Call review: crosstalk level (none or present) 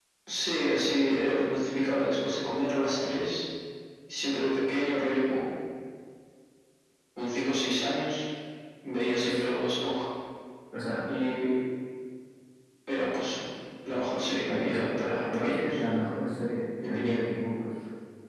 present